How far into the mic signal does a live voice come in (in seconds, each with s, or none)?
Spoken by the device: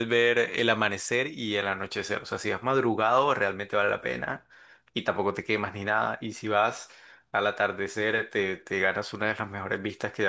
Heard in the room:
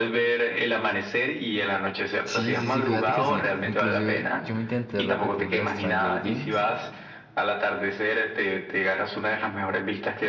2.2 s